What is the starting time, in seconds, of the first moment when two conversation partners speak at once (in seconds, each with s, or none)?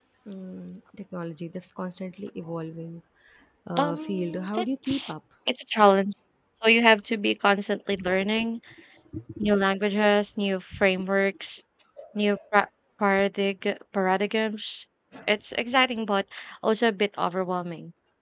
3.8 s